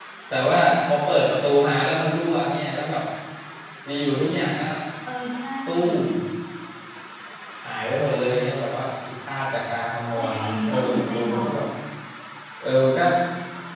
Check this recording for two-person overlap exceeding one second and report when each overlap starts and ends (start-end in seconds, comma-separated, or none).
10.2-11.4